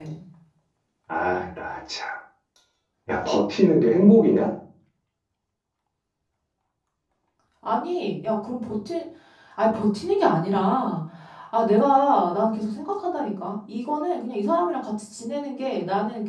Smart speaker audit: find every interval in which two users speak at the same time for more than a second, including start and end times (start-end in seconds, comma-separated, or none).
none